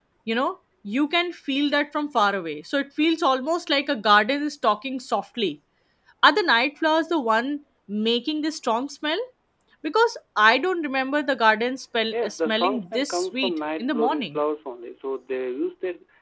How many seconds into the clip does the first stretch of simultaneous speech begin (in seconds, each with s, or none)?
12.1 s